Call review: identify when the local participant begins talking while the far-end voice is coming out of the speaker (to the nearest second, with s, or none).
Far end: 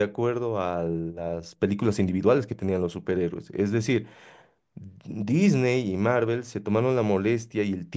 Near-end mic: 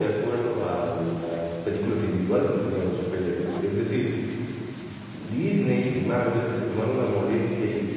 none